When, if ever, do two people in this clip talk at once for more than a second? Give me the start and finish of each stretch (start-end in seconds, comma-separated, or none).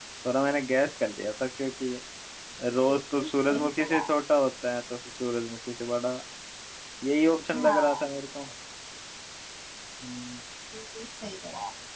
2.9-4.1